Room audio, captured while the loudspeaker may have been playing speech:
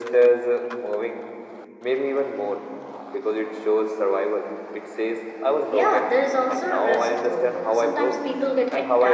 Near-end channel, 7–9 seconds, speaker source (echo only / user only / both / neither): echo only